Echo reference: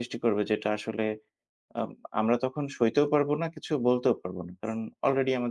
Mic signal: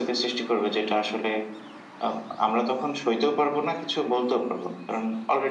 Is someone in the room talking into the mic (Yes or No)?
No